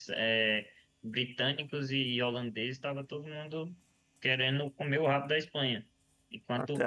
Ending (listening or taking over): taking over